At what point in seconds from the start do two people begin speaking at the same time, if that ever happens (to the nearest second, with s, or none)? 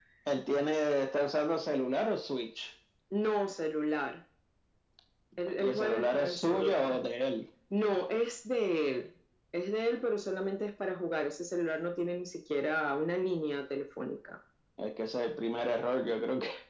6 s